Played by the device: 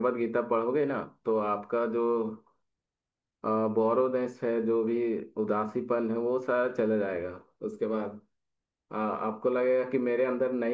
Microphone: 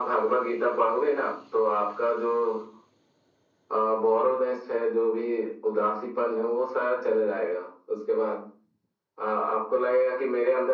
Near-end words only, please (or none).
none